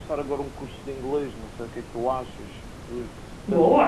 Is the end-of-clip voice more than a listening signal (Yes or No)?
Yes